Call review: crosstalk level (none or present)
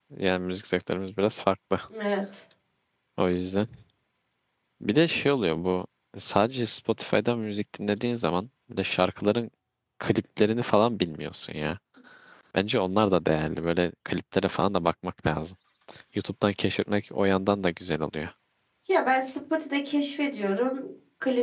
none